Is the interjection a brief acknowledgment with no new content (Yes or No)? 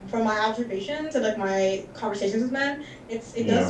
Yes